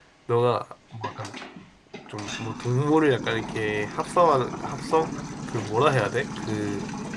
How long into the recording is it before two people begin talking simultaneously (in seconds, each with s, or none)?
none